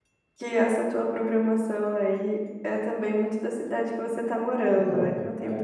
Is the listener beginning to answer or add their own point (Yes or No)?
Yes